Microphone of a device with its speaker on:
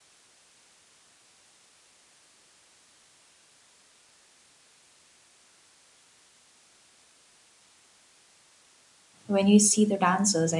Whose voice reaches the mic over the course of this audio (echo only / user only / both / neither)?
user only